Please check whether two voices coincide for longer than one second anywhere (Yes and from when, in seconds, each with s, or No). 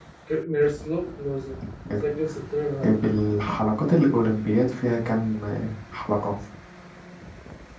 No